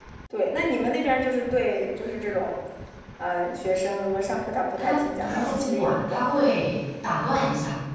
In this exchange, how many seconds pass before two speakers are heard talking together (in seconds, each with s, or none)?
4.8 s